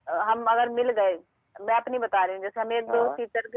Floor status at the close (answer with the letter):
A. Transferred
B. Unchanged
B